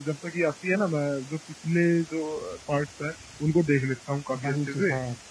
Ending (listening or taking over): taking over